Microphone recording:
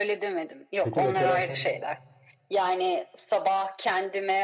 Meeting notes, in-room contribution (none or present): present